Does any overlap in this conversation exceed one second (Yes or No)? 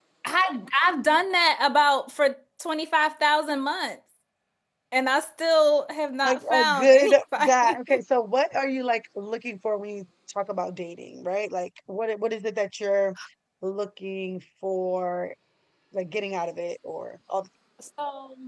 Yes